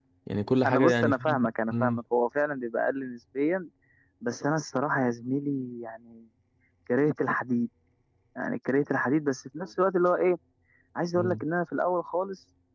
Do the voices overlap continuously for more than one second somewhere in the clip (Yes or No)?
Yes